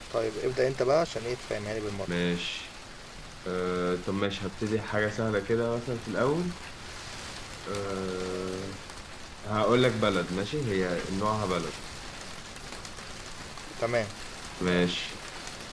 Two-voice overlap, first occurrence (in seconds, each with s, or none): none